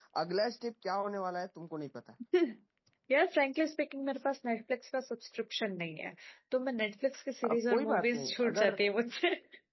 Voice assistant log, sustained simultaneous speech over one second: present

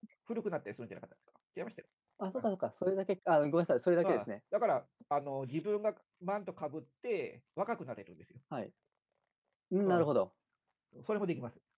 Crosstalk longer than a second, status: none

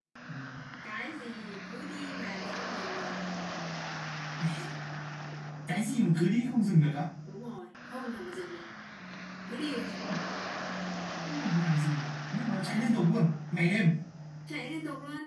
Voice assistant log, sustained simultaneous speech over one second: none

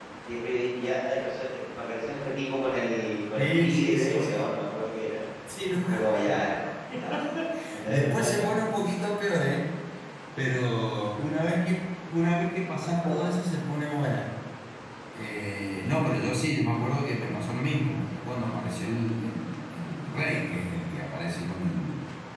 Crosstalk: present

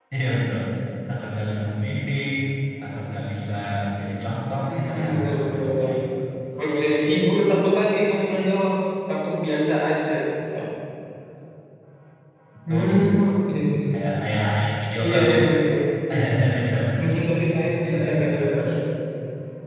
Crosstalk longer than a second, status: present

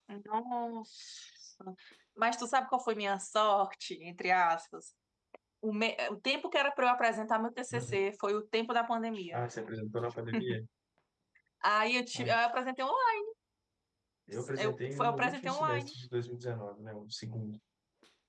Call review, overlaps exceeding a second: present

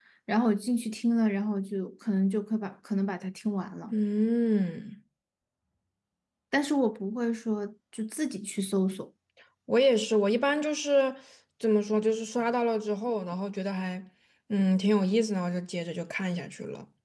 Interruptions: none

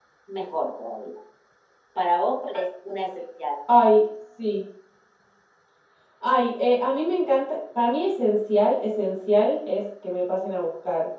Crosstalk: none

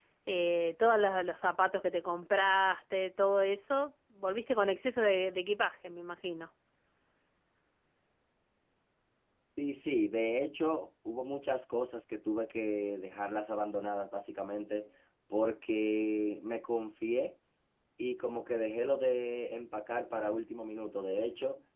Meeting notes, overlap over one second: none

